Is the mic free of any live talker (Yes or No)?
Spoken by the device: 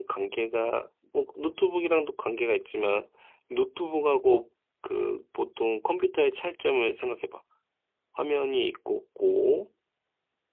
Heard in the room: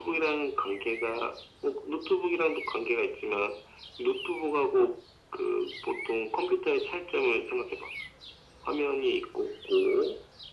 Yes